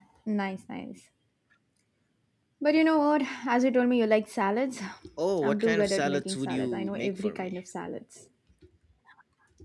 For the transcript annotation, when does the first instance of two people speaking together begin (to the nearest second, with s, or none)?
5 s